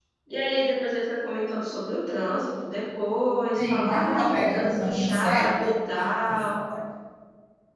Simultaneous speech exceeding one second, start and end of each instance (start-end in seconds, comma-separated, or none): 3.6-5.8